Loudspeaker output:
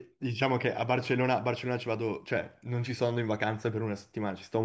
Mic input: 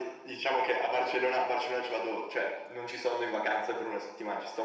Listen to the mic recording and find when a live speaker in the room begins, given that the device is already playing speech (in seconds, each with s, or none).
none